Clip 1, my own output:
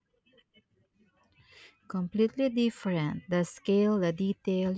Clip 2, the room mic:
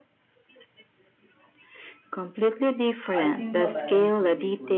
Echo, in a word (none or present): present